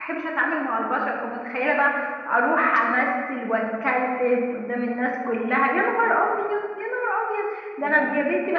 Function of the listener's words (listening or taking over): listening